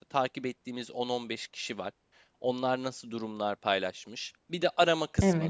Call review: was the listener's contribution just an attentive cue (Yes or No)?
Yes